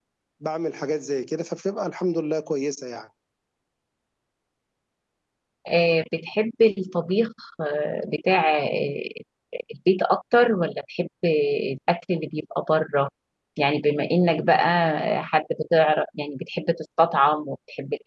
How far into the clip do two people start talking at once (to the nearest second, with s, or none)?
none